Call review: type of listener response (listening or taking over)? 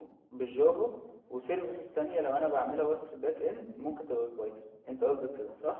taking over